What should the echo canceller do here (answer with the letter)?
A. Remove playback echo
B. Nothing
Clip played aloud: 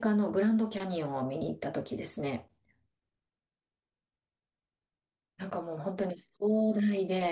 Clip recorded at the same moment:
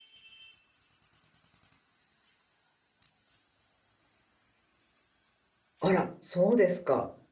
B